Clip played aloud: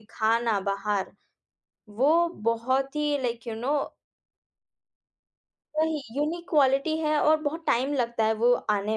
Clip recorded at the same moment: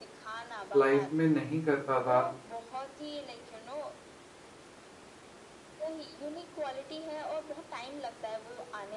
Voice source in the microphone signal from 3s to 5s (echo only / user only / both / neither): echo only